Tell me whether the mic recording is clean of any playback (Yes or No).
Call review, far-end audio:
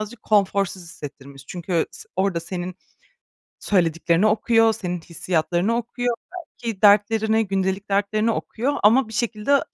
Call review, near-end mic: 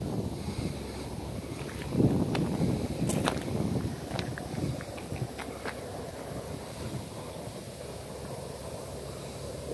Yes